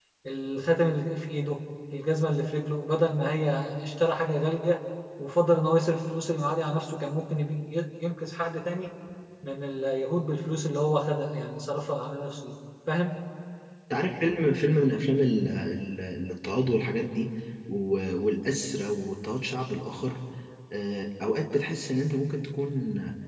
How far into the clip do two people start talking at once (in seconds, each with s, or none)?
none